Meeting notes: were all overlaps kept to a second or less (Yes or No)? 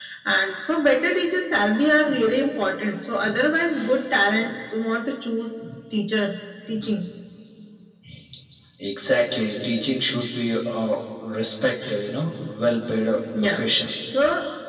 Yes